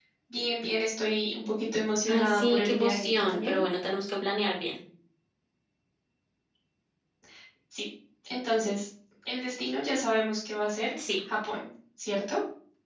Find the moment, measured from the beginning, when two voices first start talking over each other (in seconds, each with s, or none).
2.1 s